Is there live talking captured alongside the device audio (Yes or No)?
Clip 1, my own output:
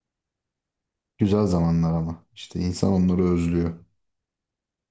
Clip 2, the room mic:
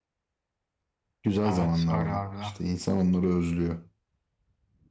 Yes